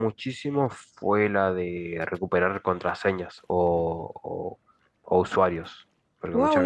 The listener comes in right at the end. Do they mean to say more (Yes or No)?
Yes